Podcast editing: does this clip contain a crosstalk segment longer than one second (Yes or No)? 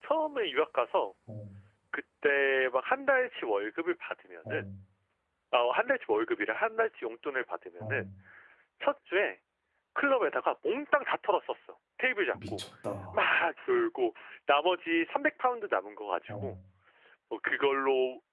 No